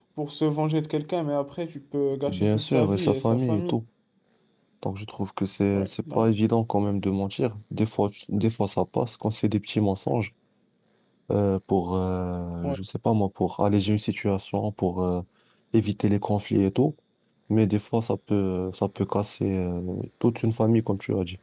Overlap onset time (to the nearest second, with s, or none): 2 s